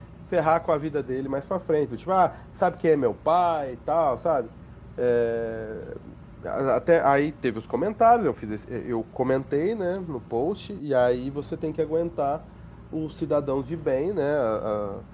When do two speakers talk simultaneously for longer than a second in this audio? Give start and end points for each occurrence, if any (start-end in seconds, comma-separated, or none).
none